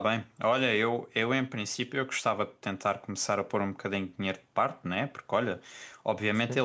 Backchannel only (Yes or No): Yes